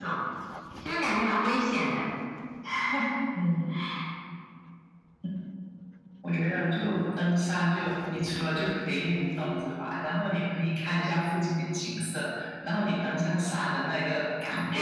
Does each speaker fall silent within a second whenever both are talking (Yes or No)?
Yes